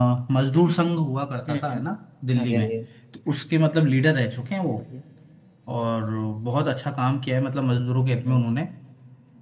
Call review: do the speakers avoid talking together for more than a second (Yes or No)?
Yes